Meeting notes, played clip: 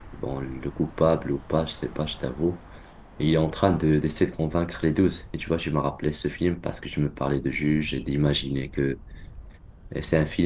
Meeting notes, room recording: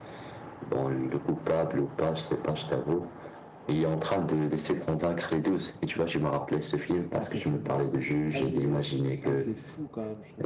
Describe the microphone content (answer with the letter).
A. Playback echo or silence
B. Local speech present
B